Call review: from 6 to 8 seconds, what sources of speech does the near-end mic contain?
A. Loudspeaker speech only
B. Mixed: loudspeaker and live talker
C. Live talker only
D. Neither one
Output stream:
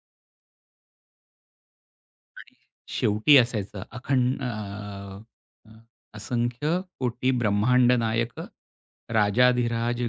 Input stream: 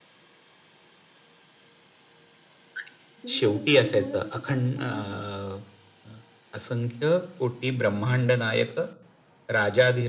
A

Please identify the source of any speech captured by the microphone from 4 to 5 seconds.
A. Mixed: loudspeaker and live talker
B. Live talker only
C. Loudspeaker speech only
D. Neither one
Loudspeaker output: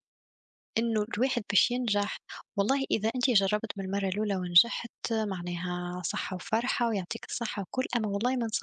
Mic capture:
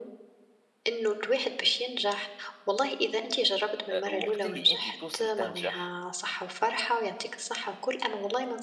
A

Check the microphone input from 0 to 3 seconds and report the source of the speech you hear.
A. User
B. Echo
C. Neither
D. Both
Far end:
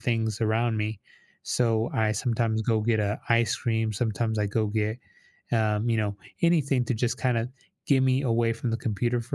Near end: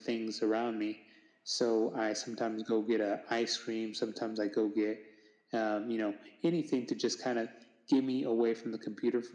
B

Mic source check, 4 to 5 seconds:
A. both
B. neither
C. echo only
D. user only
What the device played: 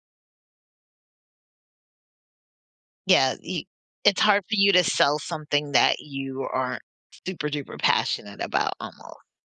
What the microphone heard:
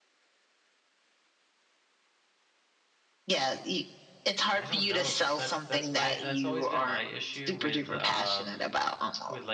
A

